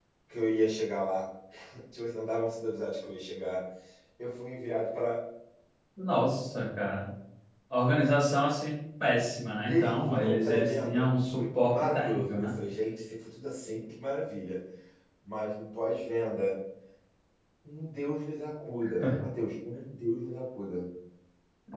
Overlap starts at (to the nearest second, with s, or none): 10 s